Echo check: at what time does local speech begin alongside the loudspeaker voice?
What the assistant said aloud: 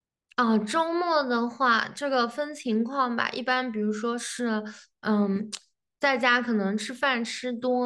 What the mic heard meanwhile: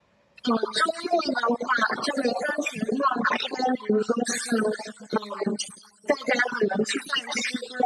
none

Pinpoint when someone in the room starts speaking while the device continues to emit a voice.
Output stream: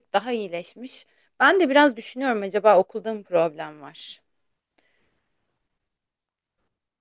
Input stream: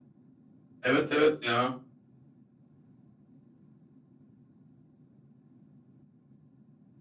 0.8 s

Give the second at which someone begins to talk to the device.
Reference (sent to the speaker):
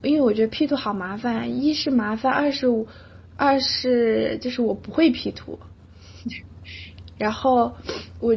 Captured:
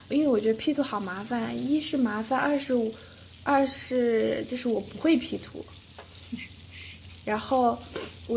none

